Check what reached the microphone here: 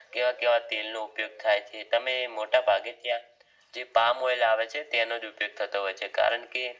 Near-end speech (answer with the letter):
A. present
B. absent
B